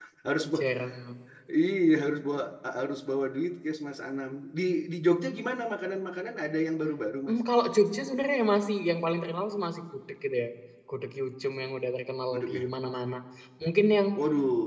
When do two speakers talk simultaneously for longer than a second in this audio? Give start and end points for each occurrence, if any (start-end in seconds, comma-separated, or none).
none